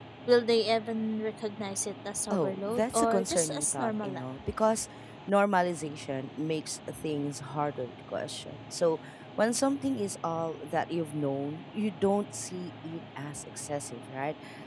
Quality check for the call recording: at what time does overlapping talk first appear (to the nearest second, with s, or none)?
2 s